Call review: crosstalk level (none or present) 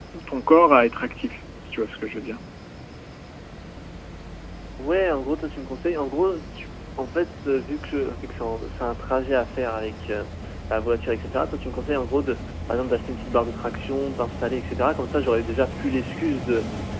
none